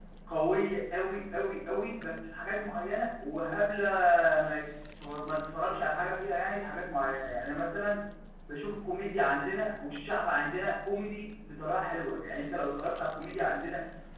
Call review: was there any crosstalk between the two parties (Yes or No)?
No